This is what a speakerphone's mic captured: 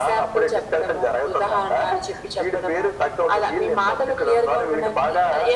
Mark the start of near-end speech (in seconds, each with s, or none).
none